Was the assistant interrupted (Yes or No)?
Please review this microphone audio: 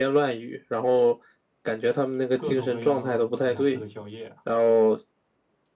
Yes